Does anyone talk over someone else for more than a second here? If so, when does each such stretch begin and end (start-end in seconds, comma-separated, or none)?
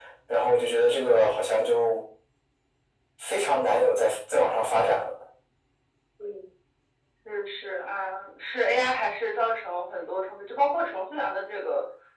none